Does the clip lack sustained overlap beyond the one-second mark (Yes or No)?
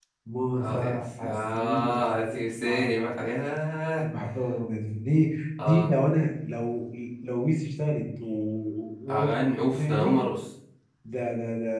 No